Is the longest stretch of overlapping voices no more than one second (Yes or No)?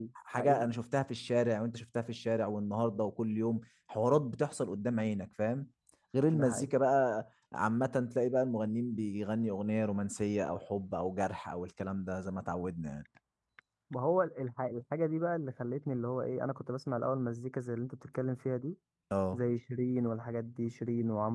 Yes